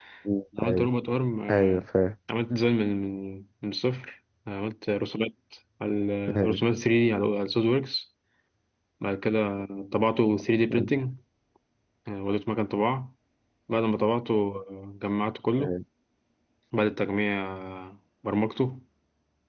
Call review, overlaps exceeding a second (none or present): none